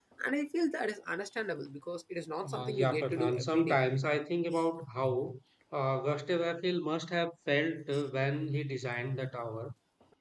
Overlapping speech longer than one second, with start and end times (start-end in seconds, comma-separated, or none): 2.4-3.8